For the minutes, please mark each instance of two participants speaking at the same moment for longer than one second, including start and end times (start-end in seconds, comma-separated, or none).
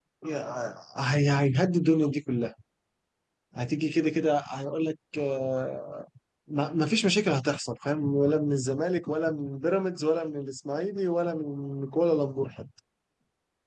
none